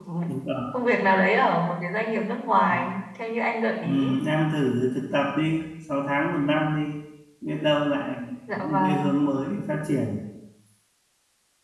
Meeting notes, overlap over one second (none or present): none